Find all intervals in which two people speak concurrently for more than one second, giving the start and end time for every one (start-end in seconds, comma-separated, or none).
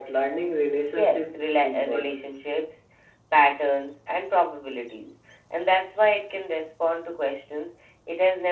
1.0-2.2